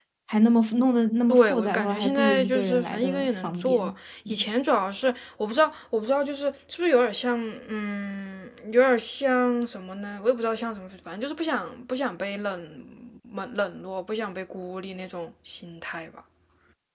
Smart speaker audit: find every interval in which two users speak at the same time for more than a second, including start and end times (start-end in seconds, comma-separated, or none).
1.3-3.8